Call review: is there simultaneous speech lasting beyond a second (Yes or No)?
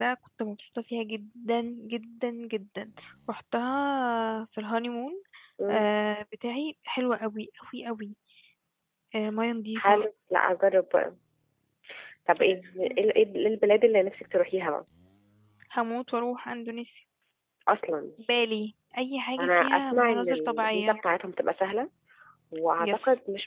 Yes